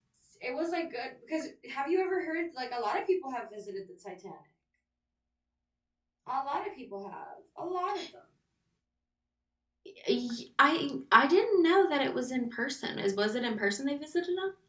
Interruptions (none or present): none